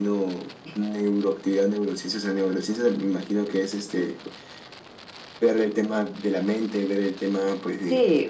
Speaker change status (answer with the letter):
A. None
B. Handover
B